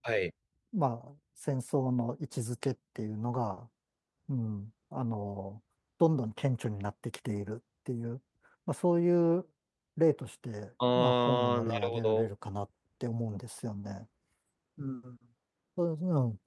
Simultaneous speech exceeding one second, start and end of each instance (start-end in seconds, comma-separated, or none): 10.9-12.3